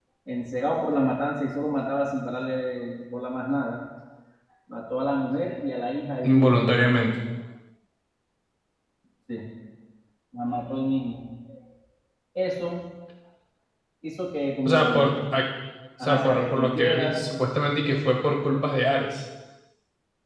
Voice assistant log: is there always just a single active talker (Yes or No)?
No